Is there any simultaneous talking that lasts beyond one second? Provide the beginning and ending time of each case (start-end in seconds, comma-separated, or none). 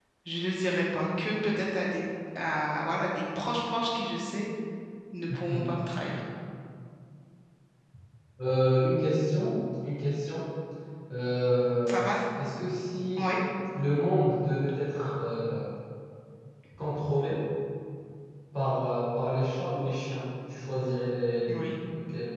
none